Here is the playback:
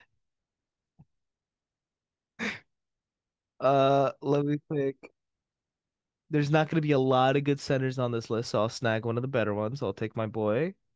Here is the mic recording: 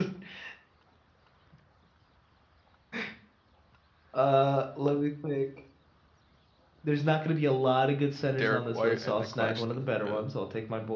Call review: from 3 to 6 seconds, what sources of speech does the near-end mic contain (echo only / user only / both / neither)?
echo only